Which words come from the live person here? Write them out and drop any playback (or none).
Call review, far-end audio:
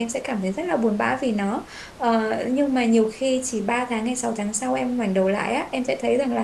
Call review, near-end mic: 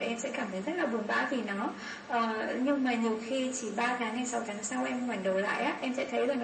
none